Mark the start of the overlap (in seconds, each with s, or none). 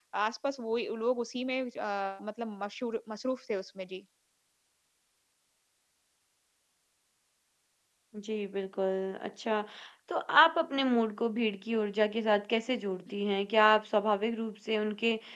none